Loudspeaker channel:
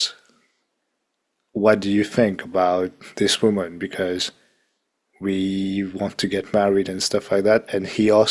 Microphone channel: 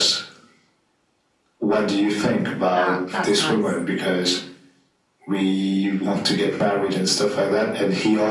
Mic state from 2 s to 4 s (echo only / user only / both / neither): both